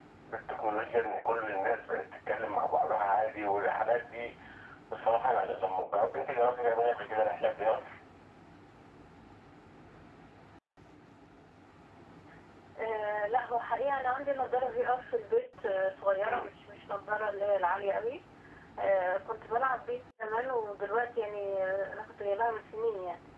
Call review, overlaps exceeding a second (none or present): none